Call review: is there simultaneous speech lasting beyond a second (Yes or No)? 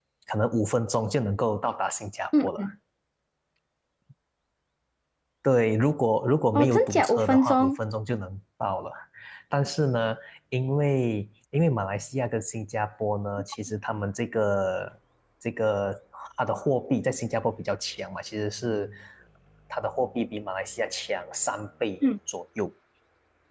Yes